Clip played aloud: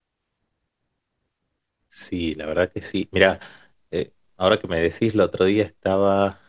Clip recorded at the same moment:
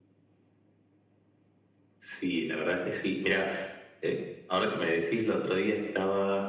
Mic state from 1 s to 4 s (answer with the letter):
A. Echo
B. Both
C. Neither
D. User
A